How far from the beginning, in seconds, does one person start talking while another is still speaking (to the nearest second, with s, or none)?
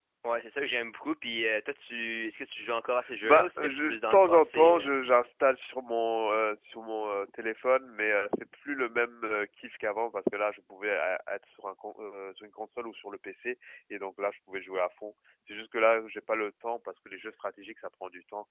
3 s